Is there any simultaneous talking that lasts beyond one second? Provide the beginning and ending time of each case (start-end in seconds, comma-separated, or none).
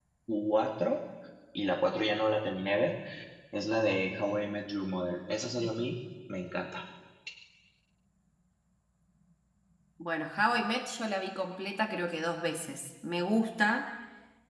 none